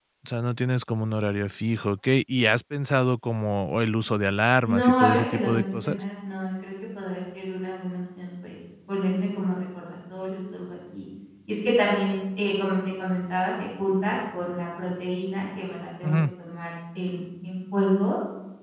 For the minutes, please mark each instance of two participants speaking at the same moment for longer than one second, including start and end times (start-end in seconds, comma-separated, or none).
4.6-6.0